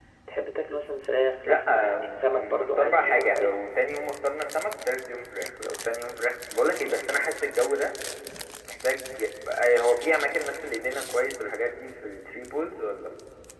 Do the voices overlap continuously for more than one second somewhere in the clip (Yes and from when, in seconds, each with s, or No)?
Yes, from 1.4 s